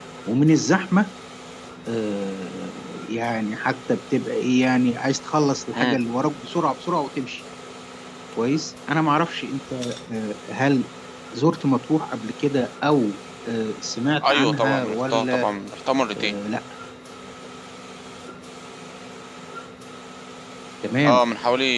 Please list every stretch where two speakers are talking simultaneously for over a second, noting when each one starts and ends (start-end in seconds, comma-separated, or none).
14.2-15.5